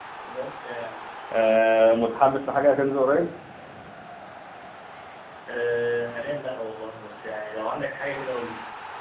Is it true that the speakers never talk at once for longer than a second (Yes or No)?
Yes